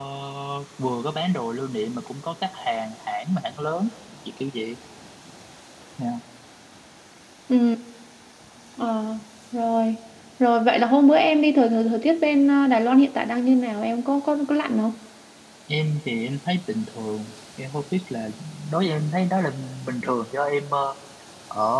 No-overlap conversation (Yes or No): Yes